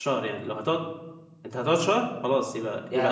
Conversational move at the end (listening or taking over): taking over